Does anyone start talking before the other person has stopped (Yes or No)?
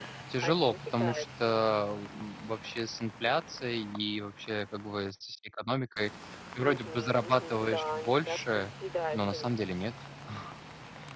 Yes